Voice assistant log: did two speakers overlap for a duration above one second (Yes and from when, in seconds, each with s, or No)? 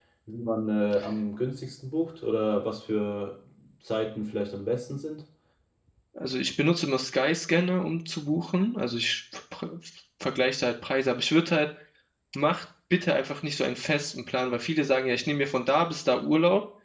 No